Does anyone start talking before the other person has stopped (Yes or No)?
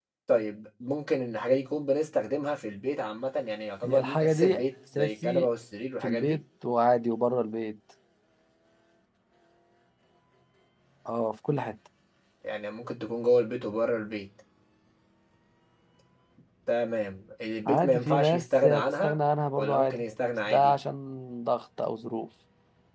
Yes